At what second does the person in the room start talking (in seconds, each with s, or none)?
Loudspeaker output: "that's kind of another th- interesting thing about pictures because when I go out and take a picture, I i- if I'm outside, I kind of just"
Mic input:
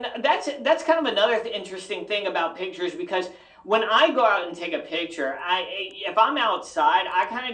none